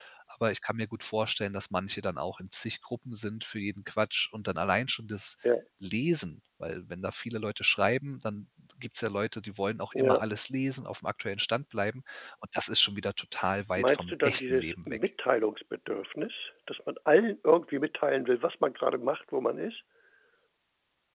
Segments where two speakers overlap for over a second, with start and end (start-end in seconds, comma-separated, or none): 13.8-15.0